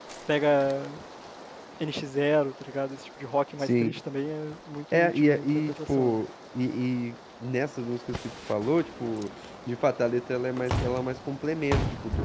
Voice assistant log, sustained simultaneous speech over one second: present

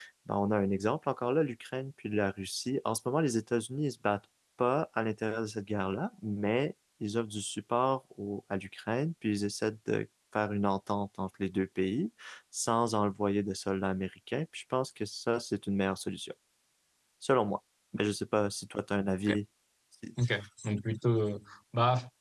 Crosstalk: none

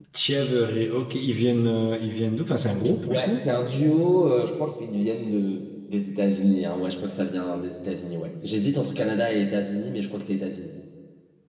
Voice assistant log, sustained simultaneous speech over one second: none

